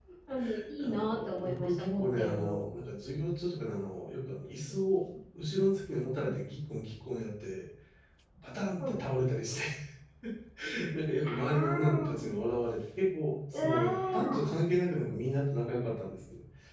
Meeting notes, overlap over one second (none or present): present